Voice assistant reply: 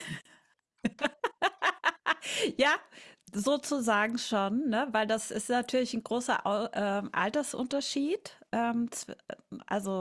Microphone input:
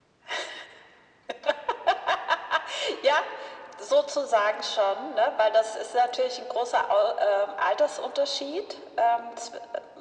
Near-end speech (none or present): none